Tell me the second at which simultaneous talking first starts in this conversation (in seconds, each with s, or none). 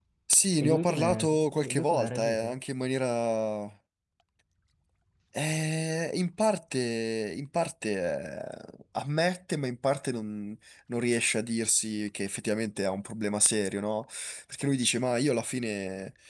0.6 s